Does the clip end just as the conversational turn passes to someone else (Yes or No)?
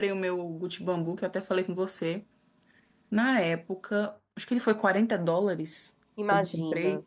No